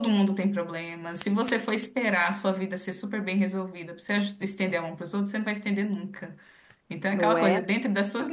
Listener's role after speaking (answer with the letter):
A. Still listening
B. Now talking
A